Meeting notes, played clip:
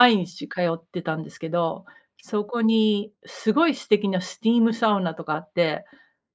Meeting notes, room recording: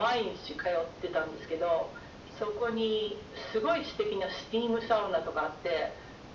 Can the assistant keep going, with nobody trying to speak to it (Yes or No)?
Yes